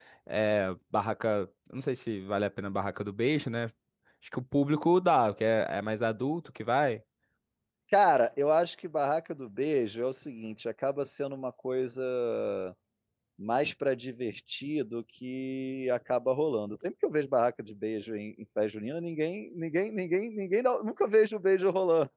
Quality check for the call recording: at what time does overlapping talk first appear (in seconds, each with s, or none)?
none